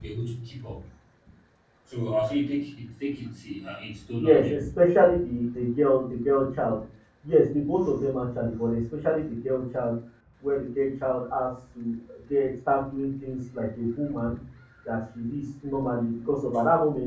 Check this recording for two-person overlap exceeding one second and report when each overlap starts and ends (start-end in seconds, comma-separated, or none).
none